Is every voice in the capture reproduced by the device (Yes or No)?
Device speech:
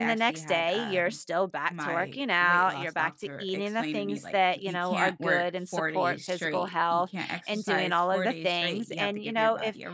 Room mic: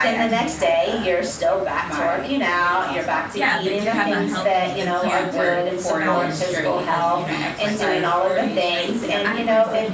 No